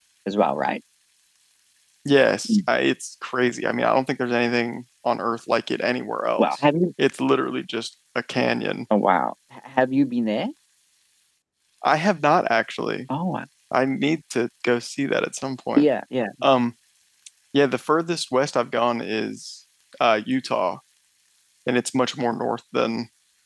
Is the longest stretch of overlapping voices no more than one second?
Yes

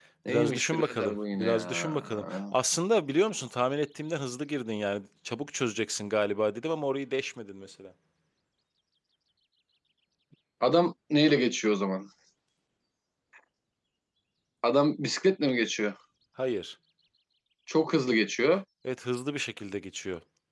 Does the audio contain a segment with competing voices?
Yes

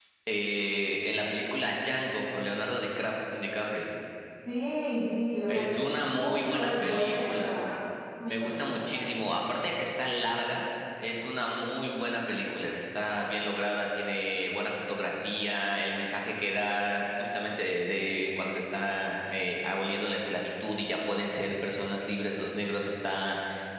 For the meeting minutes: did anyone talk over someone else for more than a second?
Yes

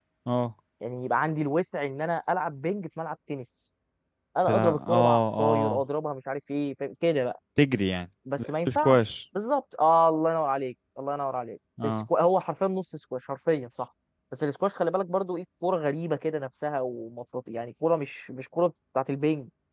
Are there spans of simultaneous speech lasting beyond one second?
Yes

